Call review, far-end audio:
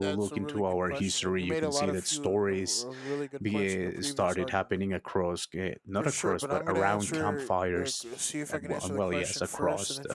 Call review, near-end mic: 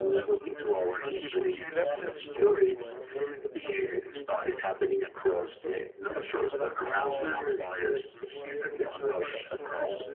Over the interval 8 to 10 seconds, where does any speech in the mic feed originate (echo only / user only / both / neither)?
both